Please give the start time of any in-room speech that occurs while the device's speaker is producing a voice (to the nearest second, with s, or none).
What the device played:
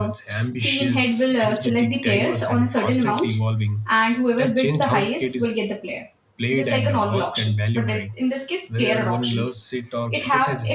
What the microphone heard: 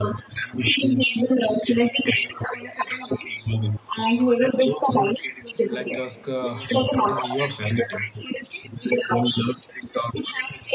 6 s